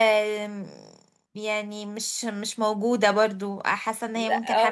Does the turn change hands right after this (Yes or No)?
Yes